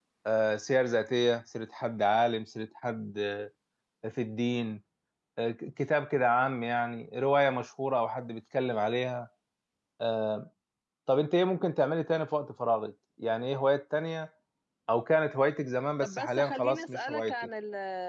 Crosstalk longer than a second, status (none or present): present